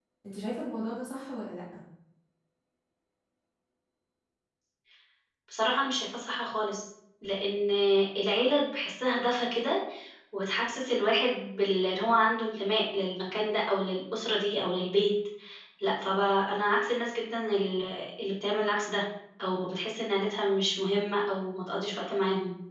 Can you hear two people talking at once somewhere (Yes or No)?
No